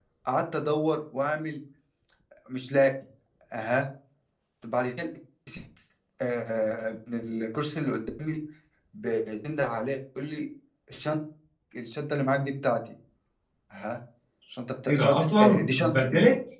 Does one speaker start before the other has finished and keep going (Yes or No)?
Yes